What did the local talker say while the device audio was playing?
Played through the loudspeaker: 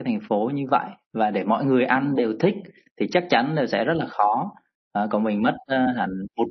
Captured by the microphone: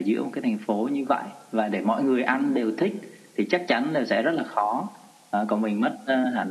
none

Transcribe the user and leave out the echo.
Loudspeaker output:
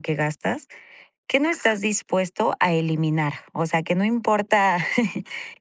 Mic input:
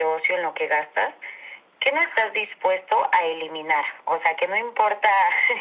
none

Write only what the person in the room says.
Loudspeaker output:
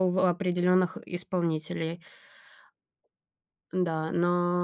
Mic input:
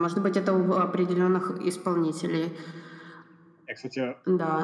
Я, кстати,

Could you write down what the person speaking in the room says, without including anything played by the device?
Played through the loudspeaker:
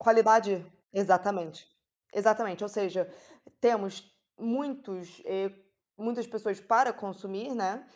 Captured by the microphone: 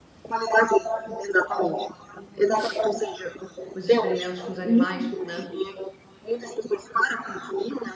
os experimentos com os animais, né,

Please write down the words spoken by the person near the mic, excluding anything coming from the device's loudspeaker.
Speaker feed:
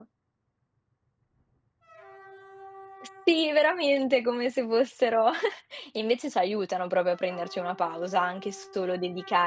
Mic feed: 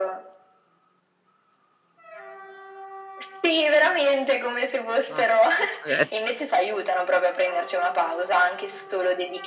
Mah, può esse

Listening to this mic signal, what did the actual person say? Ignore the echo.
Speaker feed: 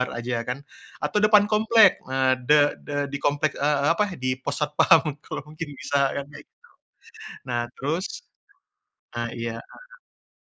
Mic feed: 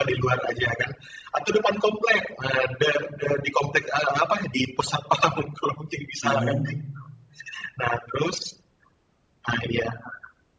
Ah hah.

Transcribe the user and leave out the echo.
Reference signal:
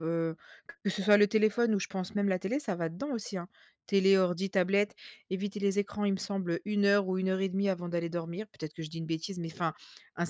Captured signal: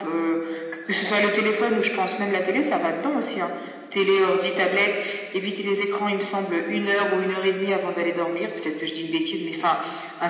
none

